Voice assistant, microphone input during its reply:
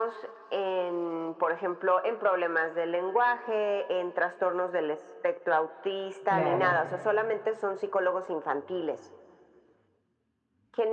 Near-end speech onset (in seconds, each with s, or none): 6.2 s